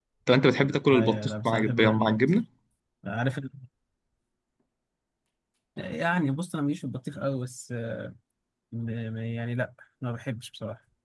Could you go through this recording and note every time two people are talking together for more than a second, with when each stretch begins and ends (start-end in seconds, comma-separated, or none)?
0.9-2.2